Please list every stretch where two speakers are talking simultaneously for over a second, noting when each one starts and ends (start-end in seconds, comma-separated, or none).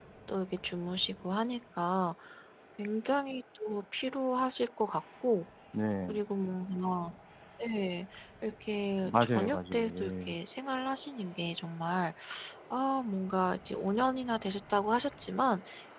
9.0-10.4